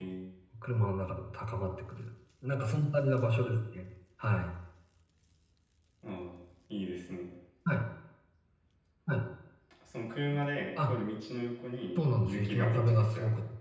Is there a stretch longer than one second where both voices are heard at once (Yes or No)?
Yes